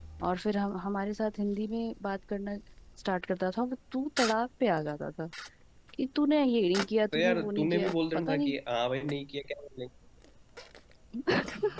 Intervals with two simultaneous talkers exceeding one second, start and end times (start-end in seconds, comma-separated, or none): 7.1-8.5